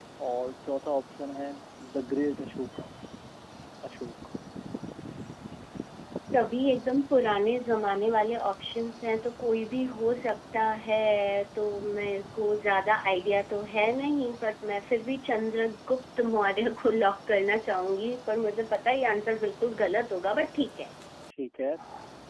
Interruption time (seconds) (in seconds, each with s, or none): none